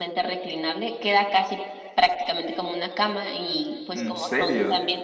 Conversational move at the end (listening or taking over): listening